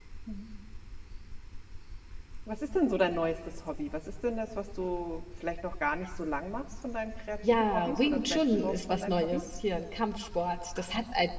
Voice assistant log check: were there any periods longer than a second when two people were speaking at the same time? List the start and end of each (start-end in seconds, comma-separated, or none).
7.4-9.4